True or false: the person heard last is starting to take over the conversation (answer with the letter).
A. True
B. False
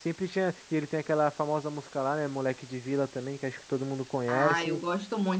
A